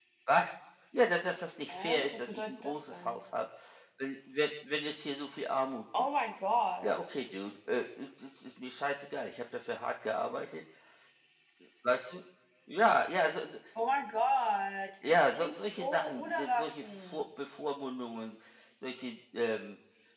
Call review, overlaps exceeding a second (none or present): present